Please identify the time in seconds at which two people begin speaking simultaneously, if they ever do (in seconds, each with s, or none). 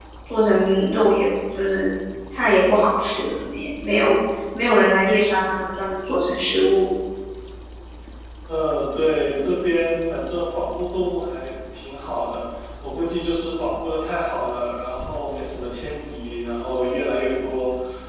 none